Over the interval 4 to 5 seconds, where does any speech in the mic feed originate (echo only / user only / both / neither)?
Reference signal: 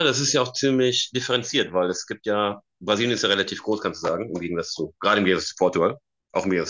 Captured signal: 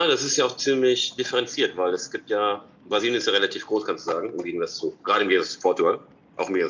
echo only